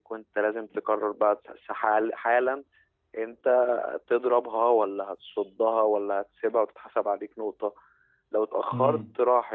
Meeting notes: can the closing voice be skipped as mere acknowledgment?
Yes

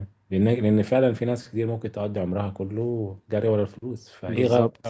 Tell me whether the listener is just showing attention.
Yes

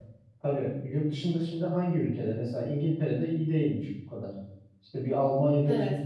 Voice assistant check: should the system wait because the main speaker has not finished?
Yes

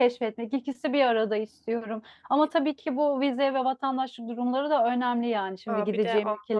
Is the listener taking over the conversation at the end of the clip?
Yes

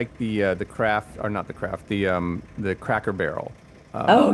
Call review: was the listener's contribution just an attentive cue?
No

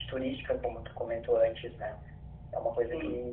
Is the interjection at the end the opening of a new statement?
No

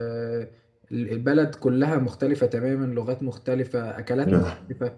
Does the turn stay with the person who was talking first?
Yes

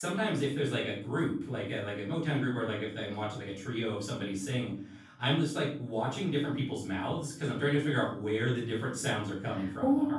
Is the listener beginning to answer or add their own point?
Yes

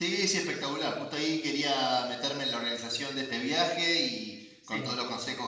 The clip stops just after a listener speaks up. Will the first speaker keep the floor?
Yes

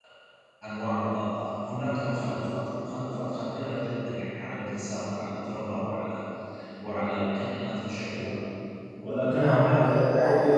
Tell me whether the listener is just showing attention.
No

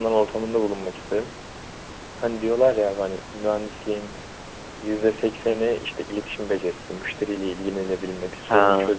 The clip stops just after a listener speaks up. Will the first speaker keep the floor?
Yes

